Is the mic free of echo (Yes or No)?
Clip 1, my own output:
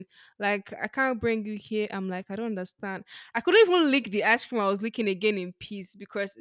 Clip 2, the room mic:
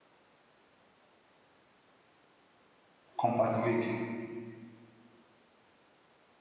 Yes